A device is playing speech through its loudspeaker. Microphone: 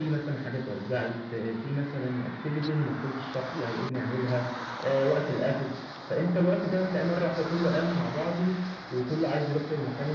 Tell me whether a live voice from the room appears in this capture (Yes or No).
No